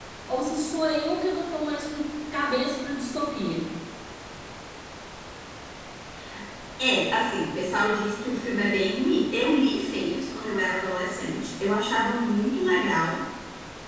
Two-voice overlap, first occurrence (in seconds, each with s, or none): none